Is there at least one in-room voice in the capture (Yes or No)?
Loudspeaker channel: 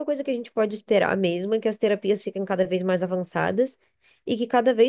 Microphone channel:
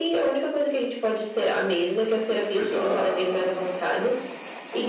Yes